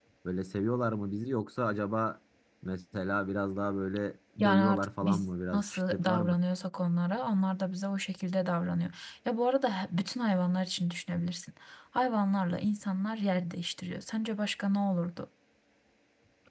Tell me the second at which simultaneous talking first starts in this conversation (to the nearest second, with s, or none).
4 s